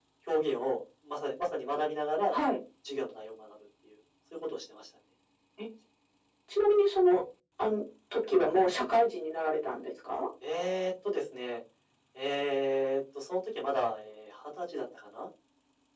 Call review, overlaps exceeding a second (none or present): none